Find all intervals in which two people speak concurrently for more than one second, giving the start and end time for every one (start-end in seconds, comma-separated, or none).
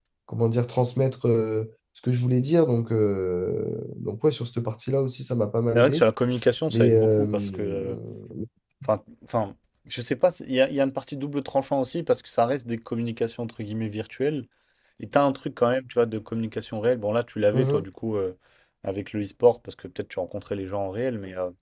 6.7-8.0